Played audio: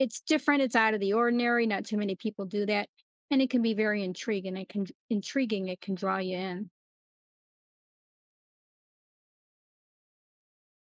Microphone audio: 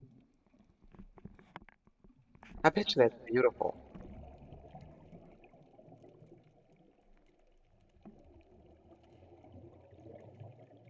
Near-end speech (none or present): present